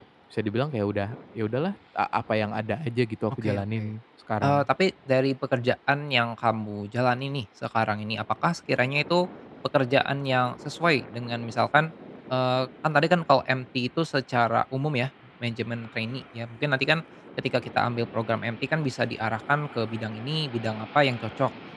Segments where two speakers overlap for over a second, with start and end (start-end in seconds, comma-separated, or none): none